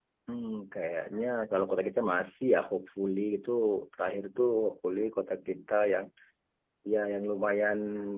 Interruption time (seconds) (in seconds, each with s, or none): none